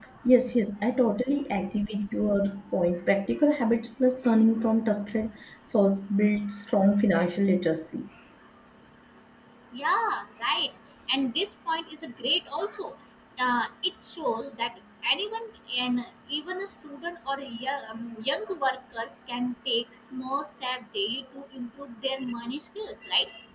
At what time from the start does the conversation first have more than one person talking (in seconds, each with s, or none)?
none